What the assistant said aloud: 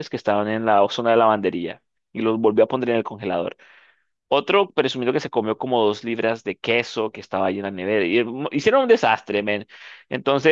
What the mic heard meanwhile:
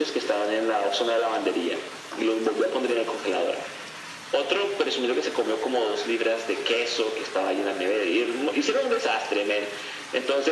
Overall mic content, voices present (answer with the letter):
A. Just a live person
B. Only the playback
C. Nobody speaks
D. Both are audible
B